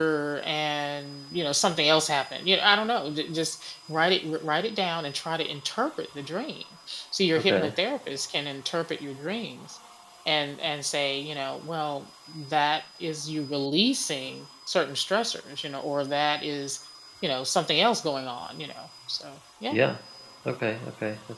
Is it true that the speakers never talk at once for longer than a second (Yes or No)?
Yes